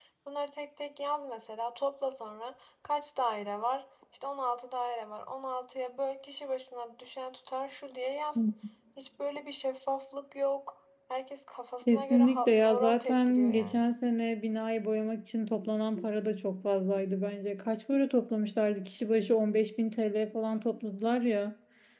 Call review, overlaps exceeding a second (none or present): present